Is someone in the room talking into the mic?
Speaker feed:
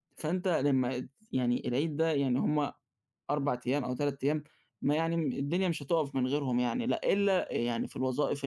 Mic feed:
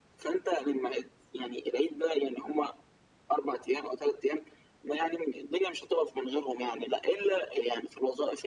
No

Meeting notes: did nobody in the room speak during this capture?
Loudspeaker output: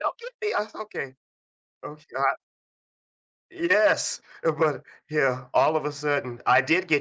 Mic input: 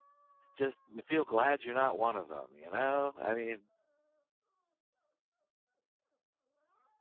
No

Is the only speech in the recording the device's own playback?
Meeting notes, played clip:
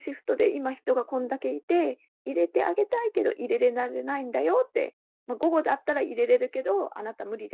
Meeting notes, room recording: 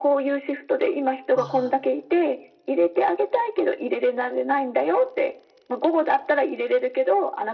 No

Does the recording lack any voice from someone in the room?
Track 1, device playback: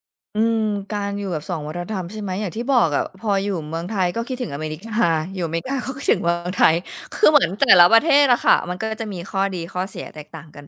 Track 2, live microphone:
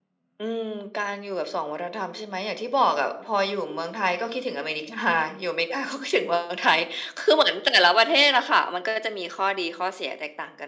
Yes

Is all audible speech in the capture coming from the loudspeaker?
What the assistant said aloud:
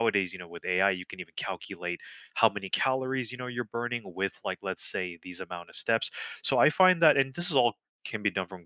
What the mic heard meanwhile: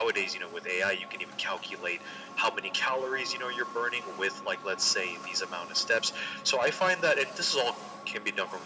Yes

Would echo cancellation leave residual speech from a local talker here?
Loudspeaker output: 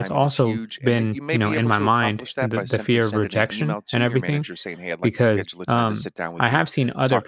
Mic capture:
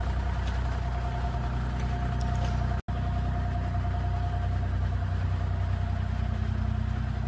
No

